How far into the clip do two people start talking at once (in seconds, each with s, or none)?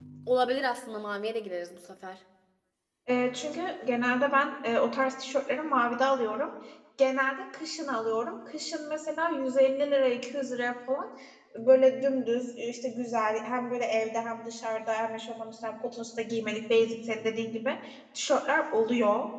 none